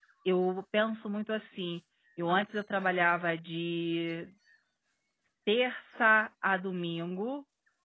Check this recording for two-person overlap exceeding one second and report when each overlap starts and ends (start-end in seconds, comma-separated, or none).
none